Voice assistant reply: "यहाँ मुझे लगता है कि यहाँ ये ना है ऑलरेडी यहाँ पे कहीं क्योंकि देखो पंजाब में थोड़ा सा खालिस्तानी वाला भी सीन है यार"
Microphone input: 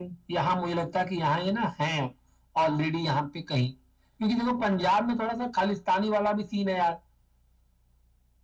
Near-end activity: none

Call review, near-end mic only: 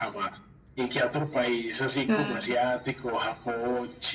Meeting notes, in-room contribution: present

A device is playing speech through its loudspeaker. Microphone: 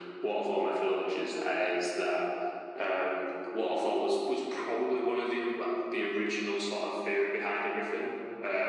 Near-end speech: none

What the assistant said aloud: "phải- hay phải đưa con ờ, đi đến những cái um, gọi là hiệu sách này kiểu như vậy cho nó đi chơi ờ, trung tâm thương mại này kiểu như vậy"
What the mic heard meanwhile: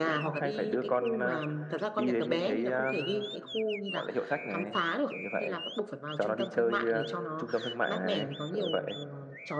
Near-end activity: present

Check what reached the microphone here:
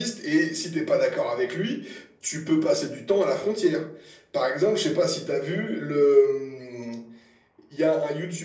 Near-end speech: none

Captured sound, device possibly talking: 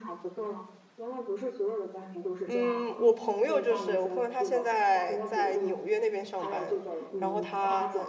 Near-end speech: present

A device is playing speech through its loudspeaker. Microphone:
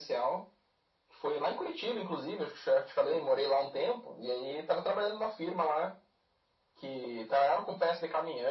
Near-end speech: none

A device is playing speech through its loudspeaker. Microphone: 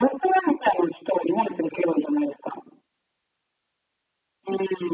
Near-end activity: none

